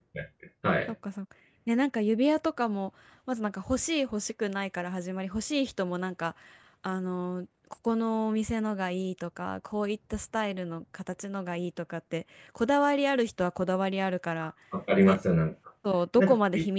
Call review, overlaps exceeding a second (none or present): none